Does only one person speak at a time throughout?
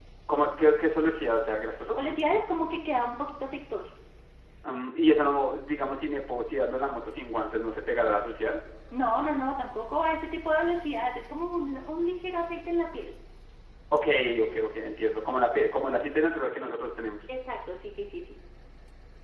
Yes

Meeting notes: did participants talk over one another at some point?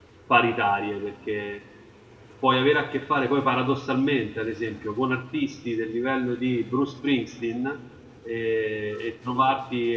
No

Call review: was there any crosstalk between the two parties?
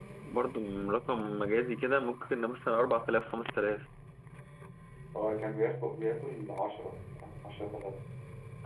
No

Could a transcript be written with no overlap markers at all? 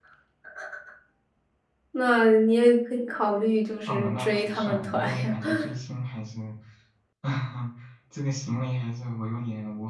No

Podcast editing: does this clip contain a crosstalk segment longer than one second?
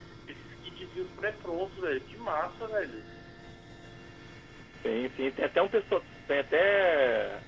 No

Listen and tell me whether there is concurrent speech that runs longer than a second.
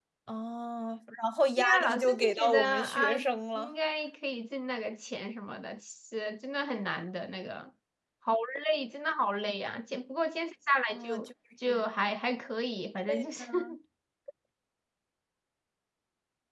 Yes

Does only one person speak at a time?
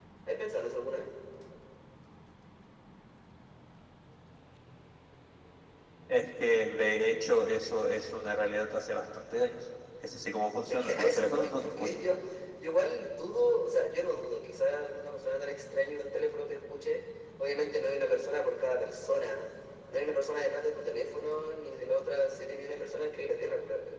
No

